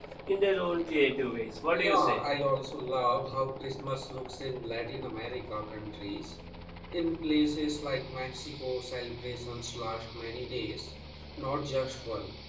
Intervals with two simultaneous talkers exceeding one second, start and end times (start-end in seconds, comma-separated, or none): none